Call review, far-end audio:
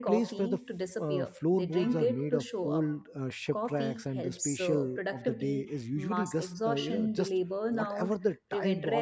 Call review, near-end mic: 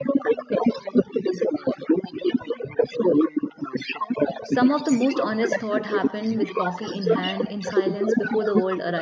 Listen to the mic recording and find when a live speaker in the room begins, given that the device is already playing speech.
4.4 s

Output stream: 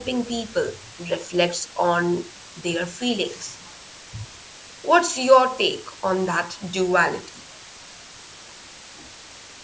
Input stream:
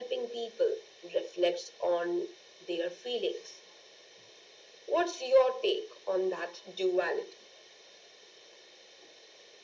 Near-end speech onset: none

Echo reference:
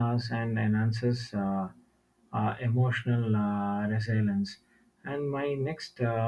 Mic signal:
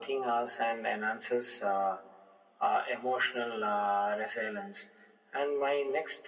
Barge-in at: none

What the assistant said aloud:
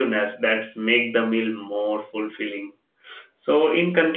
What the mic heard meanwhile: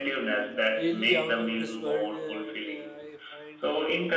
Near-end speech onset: 0.7 s

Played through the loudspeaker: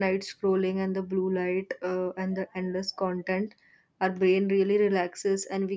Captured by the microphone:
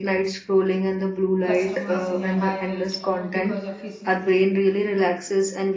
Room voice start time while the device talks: 1.5 s

